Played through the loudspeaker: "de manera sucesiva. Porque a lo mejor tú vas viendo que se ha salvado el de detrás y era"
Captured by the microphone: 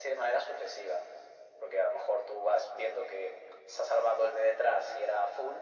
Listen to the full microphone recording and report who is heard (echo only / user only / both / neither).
echo only